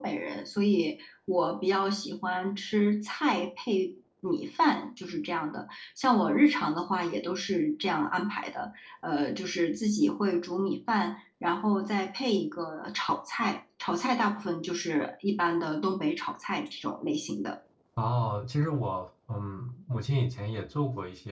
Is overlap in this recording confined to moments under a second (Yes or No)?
Yes